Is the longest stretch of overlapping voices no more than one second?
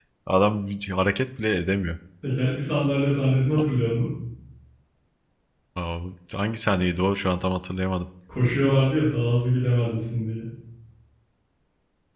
Yes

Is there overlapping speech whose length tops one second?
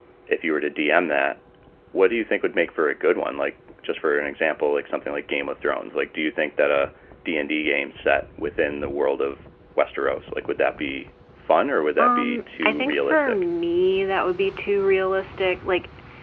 Yes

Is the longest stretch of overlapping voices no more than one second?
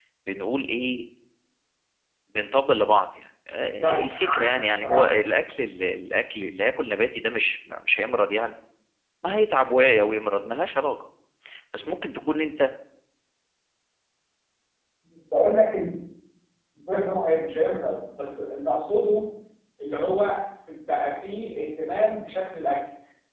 No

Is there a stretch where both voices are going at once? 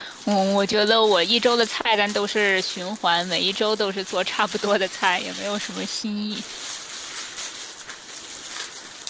No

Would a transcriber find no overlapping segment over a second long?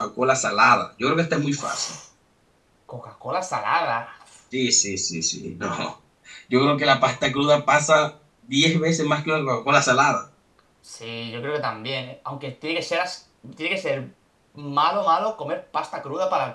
Yes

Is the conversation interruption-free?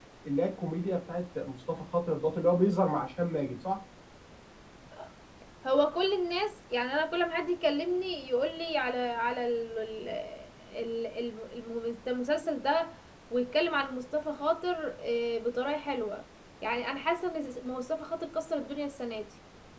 Yes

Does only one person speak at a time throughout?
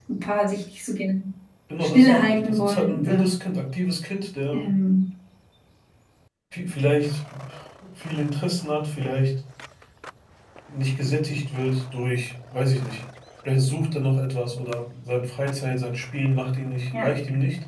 No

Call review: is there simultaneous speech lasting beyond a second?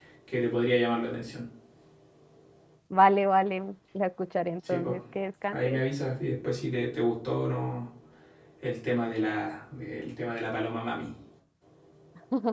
No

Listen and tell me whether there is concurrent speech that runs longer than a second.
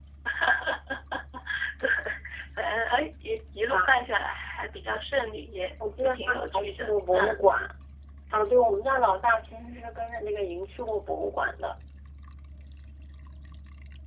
Yes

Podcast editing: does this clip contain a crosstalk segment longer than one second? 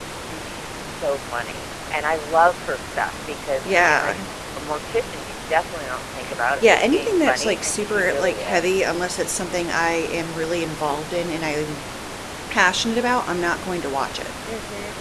Yes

